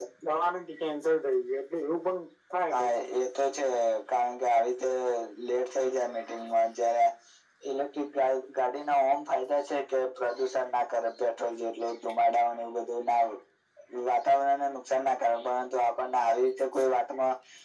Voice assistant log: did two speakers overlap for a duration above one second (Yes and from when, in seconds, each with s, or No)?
No